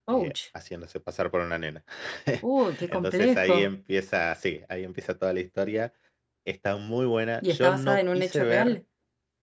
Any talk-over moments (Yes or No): Yes